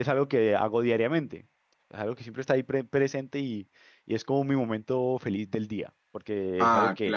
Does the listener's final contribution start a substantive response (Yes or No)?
No